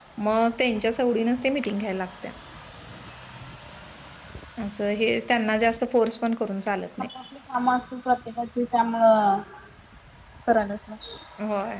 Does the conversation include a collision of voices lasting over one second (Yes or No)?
No